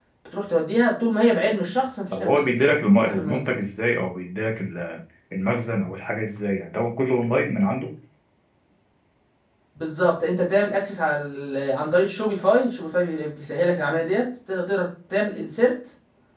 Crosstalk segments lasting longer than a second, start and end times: none

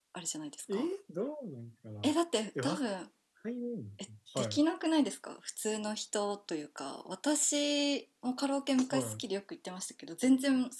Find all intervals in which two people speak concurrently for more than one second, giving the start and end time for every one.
none

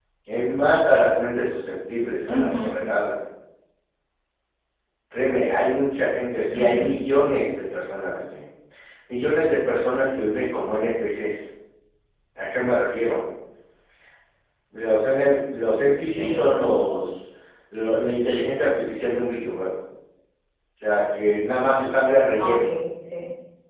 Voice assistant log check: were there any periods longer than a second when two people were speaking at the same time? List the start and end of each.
none

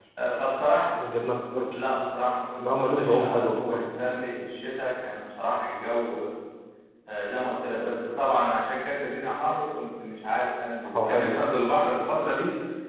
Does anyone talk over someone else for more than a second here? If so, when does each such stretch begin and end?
2.6-3.9

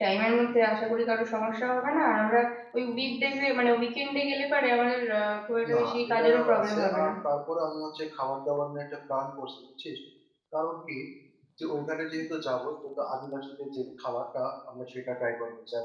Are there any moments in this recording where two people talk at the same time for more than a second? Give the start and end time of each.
5.7-7.1

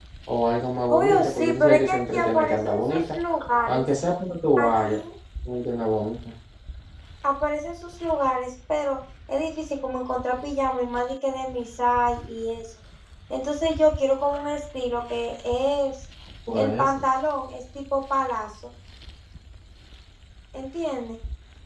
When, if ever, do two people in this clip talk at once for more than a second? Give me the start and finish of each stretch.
0.9-3.2

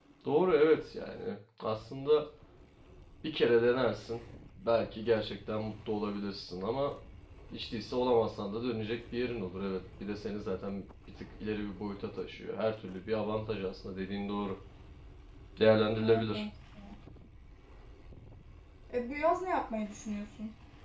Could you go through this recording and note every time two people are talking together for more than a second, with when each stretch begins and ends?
none

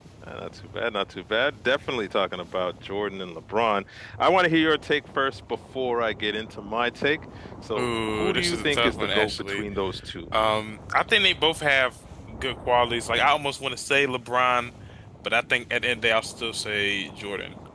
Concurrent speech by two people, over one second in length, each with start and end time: 7.8-9.6

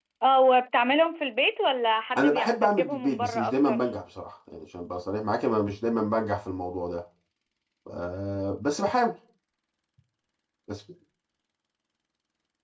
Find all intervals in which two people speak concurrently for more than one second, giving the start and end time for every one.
2.2-3.8

